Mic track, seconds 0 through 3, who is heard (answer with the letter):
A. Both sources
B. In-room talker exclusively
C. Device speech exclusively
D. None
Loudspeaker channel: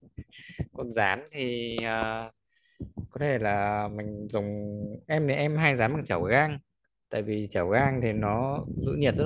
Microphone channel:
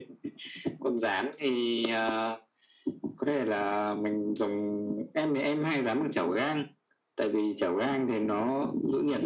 C